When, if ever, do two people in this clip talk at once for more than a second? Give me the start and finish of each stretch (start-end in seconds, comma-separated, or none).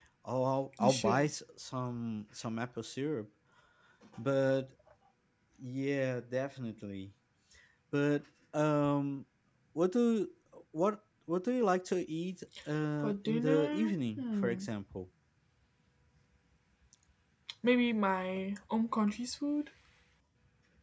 13.0-14.7